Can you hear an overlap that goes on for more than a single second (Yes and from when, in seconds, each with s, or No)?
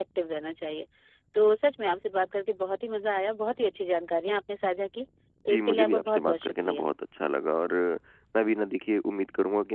Yes, from 5.5 s